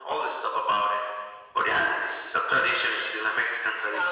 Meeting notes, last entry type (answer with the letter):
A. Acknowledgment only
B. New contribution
B